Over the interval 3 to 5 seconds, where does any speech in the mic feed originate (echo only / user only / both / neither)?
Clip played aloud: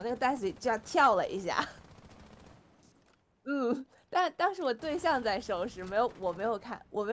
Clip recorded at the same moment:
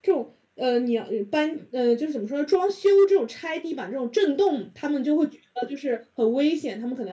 user only